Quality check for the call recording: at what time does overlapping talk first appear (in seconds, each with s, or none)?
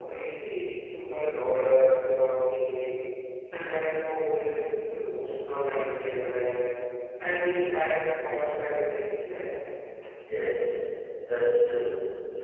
none